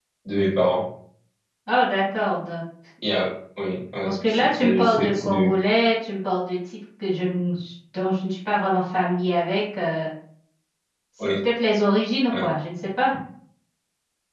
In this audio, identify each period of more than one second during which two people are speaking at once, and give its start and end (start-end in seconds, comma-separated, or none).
4.0-5.5